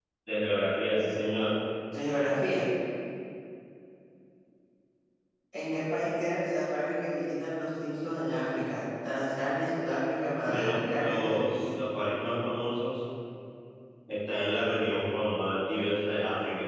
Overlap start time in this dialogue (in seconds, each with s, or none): 10.5 s